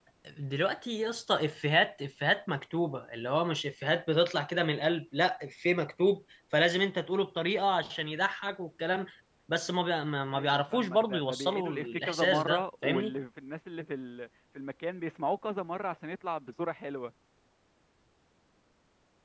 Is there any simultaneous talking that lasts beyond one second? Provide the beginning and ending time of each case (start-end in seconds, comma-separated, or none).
10.3-13.1